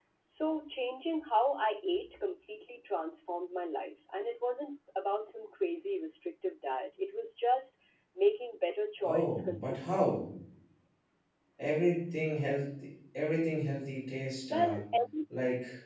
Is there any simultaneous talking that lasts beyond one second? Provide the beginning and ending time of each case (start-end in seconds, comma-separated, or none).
9.0-10.2